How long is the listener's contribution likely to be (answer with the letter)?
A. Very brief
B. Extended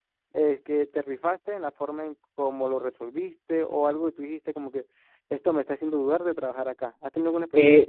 B